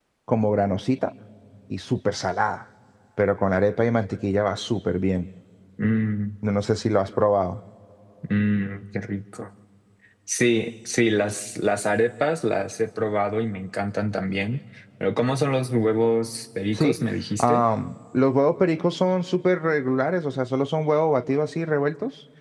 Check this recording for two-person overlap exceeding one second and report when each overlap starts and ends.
none

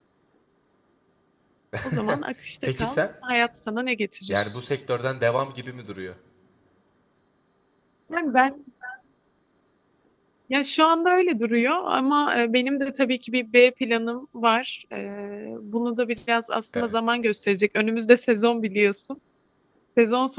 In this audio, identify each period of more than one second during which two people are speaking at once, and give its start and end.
none

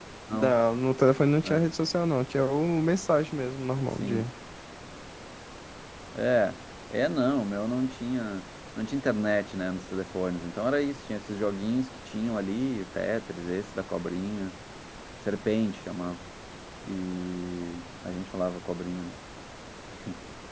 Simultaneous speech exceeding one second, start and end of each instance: none

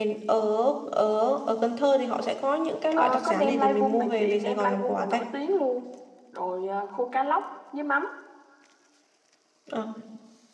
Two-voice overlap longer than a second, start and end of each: 3.0-5.2

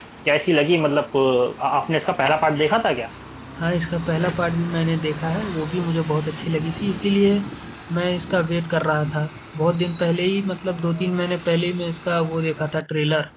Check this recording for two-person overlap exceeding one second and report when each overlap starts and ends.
none

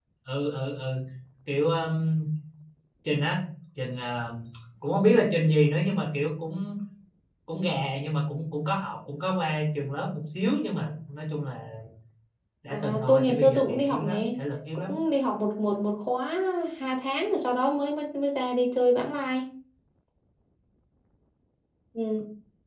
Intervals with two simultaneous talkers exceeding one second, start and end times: 12.7-14.2

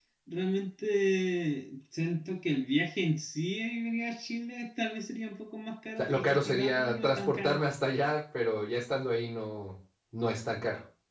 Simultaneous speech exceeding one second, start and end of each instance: 6.0-7.6

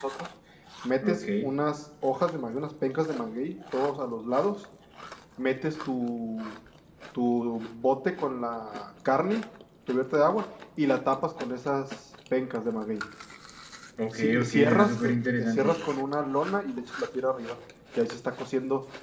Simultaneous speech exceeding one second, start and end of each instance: 14.1-15.7

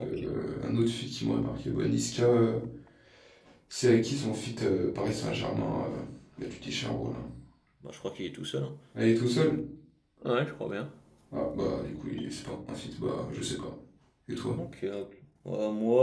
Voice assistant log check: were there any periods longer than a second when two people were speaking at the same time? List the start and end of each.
none

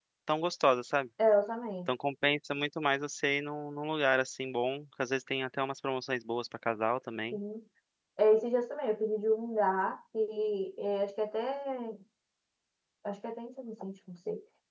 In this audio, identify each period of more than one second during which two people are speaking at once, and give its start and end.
none

